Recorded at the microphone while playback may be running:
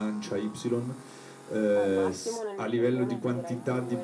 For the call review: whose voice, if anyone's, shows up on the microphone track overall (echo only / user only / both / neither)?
both